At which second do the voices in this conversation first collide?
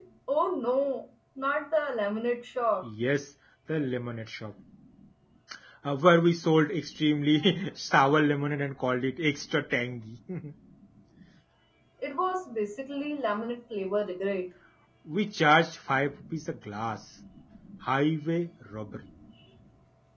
none

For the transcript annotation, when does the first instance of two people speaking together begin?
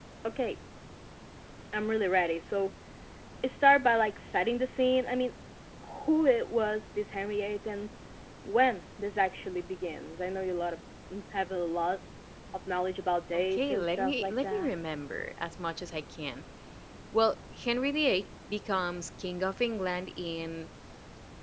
13.3 s

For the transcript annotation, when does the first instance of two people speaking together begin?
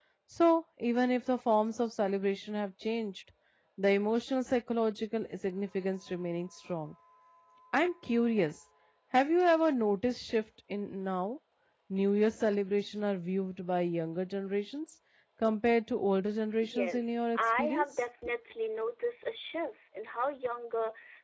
16.6 s

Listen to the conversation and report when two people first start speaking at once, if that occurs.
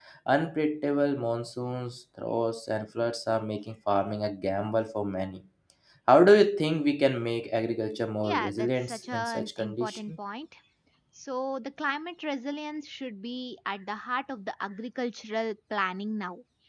8.2 s

